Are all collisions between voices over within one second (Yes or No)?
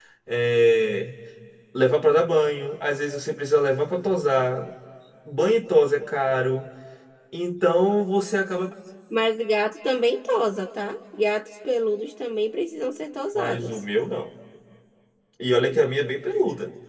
Yes